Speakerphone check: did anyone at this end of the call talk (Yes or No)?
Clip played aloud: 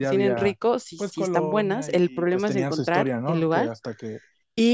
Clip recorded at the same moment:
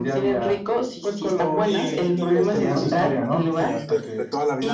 Yes